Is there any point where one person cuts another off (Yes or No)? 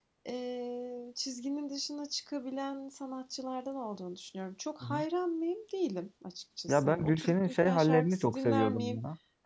Yes